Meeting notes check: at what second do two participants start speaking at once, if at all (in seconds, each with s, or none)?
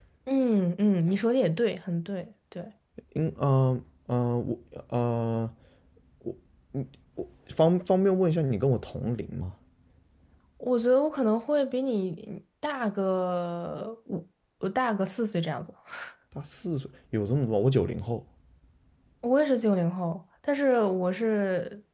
none